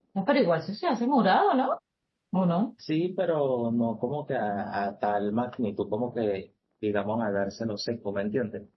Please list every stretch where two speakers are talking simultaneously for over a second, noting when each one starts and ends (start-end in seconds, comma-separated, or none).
none